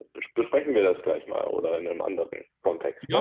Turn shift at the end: Yes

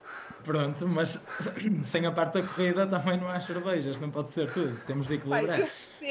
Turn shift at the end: Yes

